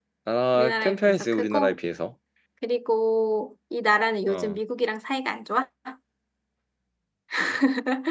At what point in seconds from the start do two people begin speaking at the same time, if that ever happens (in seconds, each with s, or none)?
0.5 s